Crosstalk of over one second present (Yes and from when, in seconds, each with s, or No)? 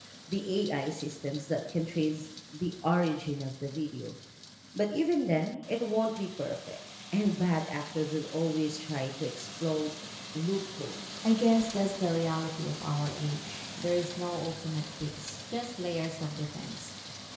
No